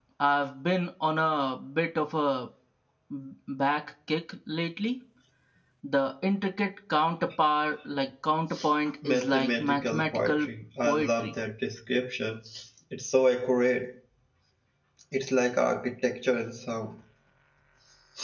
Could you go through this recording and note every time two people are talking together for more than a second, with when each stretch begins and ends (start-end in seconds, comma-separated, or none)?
9.1-10.5